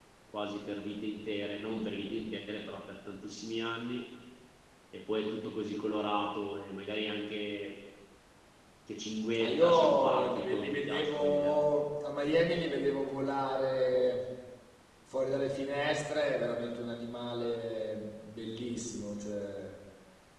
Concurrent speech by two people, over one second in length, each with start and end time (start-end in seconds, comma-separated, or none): 9.4-11.6